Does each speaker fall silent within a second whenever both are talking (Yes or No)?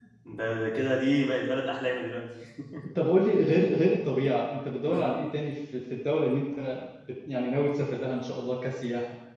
Yes